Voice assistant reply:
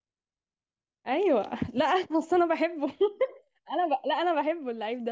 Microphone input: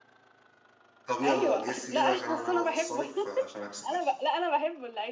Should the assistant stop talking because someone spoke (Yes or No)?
Yes